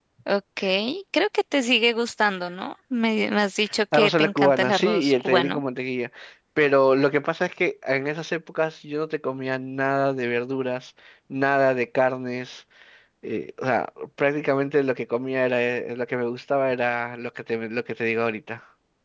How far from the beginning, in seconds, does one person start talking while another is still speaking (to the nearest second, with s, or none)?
4 s